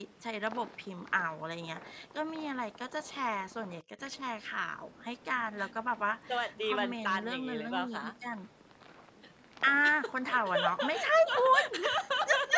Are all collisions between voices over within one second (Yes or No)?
No